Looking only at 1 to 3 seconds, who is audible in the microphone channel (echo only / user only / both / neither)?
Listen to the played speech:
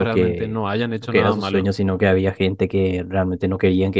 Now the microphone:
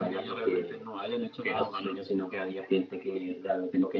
echo only